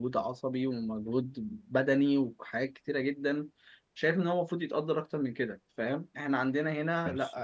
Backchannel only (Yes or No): Yes